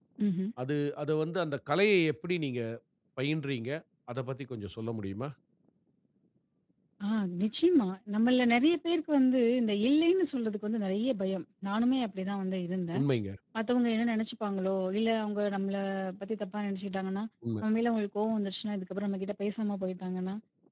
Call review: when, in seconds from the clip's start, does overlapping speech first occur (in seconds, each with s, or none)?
none